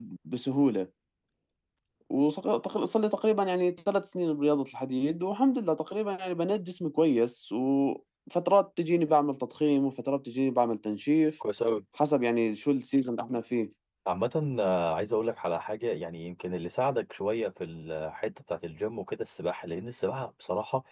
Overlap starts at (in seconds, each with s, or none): none